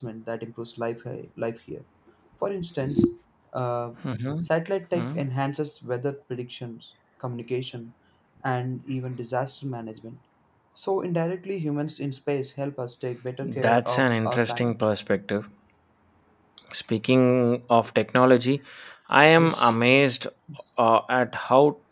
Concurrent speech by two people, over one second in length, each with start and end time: 13.4-14.7

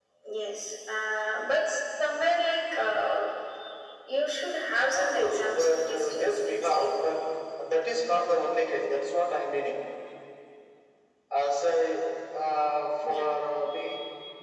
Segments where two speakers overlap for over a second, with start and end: 4.9-6.9

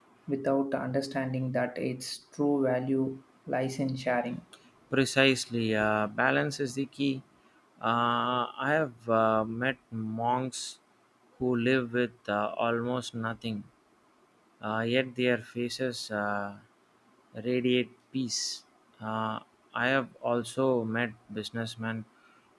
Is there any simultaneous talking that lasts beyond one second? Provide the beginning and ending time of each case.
none

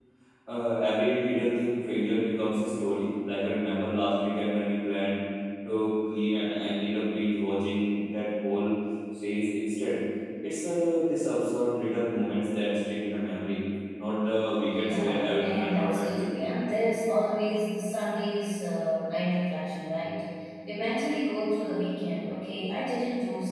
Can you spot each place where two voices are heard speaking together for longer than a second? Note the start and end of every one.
14.8-16.3

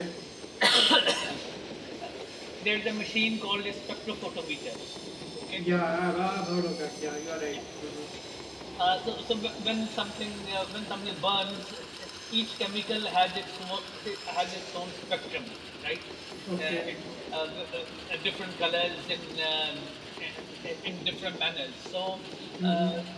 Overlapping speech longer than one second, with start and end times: none

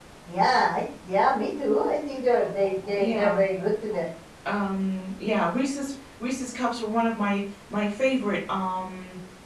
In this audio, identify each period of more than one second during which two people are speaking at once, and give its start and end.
none

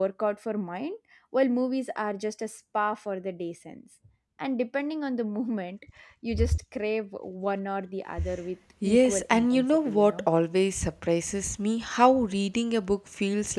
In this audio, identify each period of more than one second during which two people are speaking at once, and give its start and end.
8.8-10.3

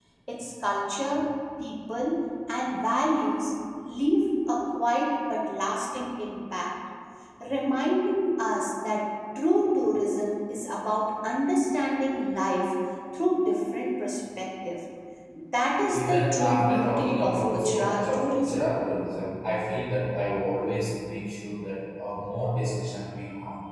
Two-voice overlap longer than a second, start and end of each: 15.9-18.7

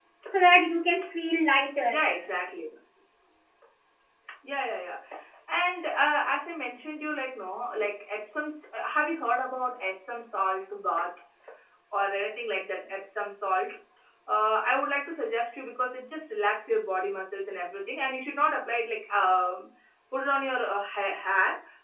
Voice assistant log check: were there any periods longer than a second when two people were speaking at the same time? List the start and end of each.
none

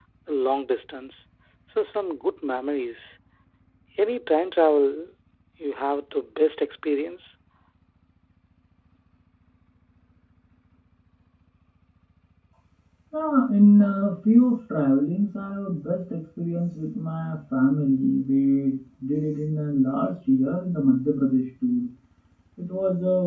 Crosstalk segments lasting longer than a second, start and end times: none

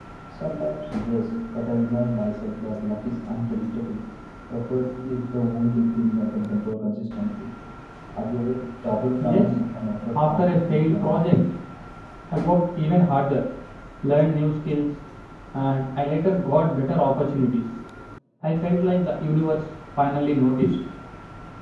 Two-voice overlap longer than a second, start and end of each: 10.1-11.4

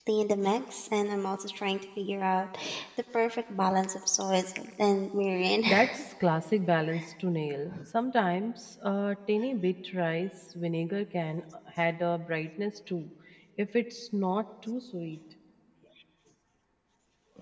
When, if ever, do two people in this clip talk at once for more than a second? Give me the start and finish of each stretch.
none

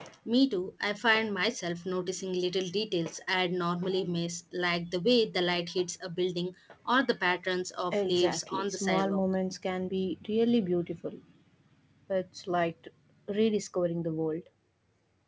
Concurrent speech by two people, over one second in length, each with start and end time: 7.9-9.2

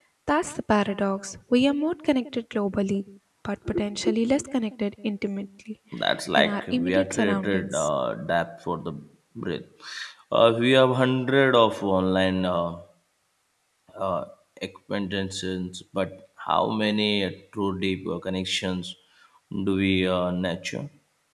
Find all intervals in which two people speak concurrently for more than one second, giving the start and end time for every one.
6.4-7.9

